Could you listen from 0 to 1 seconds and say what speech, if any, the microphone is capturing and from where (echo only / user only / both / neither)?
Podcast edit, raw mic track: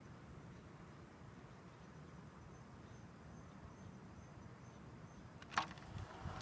neither